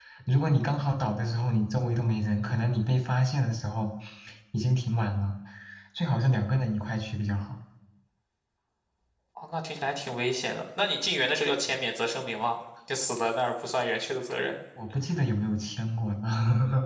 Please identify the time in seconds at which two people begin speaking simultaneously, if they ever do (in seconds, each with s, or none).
none